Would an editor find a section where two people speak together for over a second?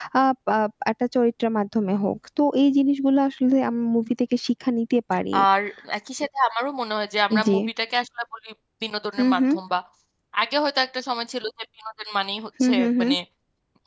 No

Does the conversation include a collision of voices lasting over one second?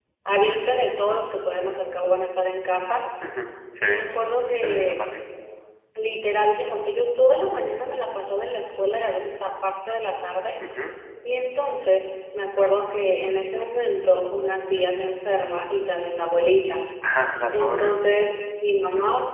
No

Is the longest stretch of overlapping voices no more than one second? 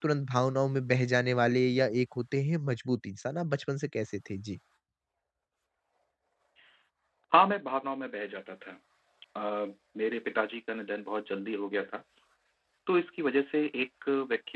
Yes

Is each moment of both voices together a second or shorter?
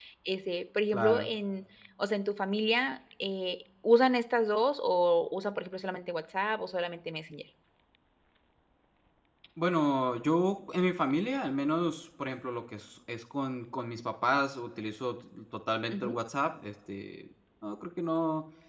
Yes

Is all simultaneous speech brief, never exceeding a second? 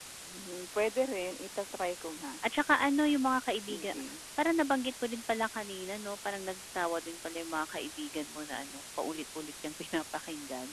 Yes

